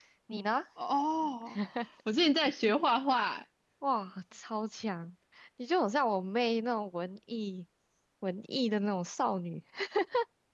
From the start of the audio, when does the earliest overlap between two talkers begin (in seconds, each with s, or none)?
none